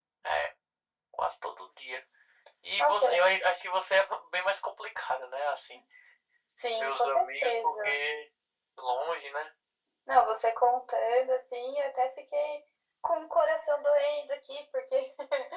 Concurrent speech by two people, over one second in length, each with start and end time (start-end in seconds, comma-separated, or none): 6.7-8.0